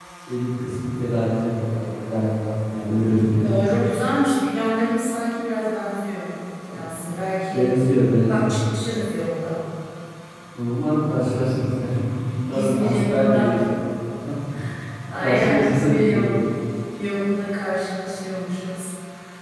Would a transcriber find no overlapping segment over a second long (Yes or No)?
No